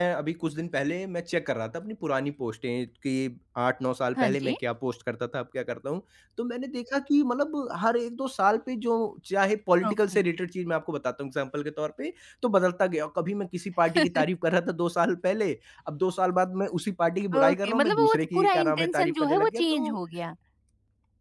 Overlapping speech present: Yes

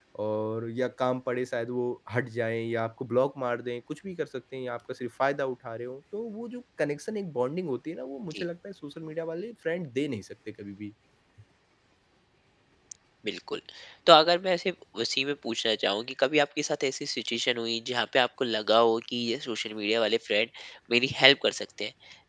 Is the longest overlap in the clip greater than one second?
No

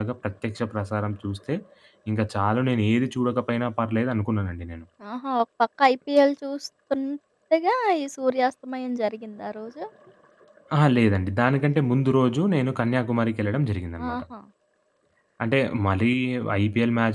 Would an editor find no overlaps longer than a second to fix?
Yes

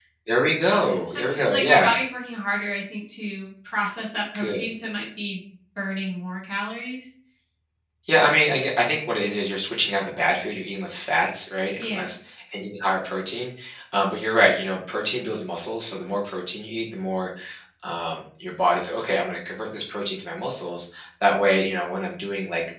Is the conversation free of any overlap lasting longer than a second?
No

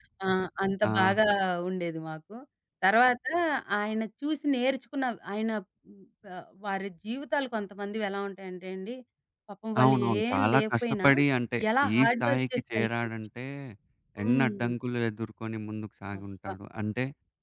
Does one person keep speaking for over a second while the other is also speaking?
Yes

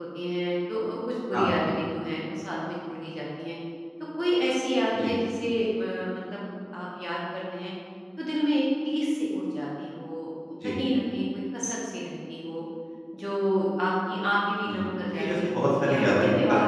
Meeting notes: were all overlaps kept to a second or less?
No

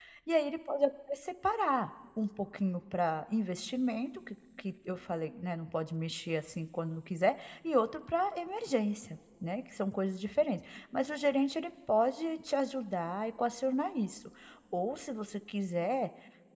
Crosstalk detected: No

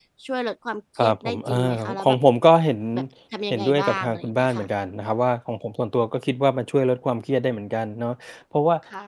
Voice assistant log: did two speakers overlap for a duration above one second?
Yes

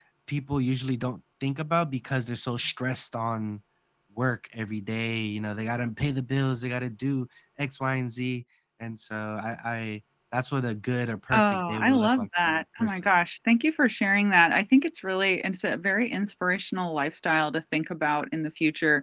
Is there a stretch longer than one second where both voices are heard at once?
Yes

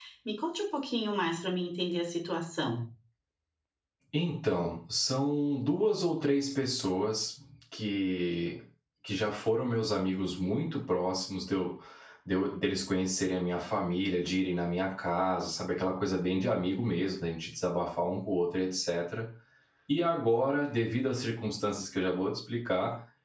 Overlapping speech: No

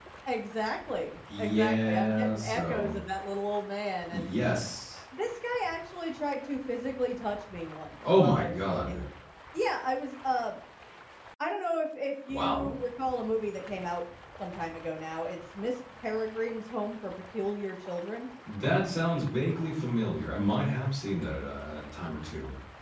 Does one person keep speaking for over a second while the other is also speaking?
Yes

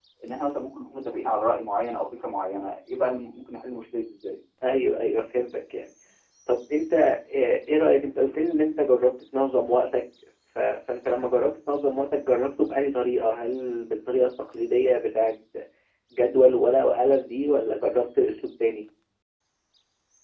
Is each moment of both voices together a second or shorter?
Yes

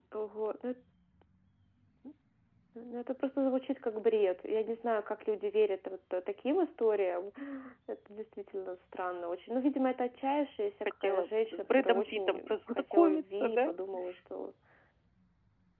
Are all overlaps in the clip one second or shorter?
No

